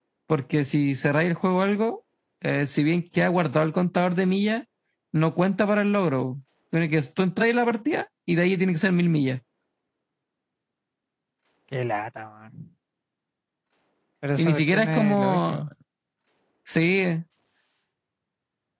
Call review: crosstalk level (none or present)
present